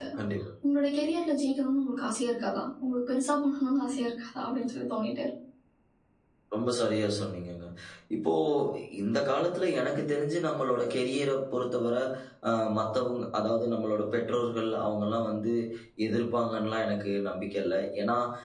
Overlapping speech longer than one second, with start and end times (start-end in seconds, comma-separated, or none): none